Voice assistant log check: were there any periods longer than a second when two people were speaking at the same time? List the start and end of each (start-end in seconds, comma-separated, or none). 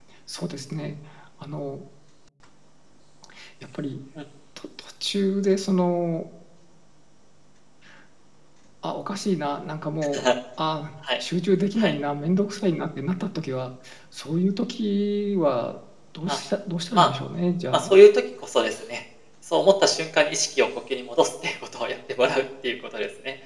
none